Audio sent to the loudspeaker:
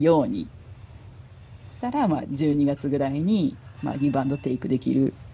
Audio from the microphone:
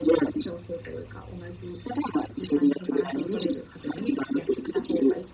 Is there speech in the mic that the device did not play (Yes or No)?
Yes